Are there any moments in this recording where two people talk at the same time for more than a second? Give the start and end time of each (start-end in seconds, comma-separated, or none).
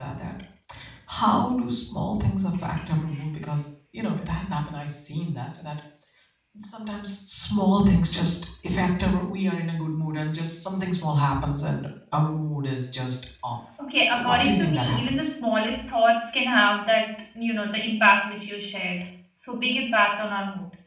14.1-15.3